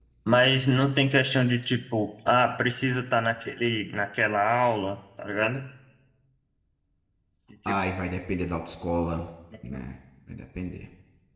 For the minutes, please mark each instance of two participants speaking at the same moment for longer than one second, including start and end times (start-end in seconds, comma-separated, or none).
none